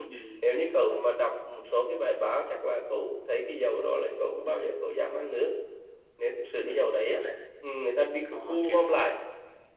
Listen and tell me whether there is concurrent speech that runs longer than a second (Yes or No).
No